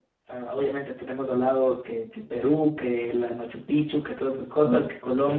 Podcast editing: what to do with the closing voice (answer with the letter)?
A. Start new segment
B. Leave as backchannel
B